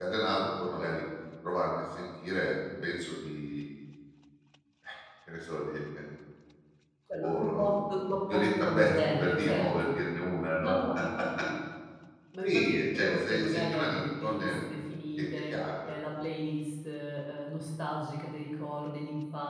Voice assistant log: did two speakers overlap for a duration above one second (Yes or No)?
Yes